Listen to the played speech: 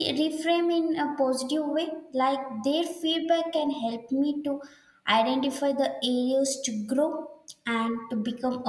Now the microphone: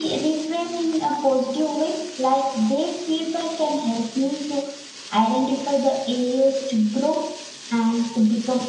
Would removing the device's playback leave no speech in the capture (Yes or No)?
Yes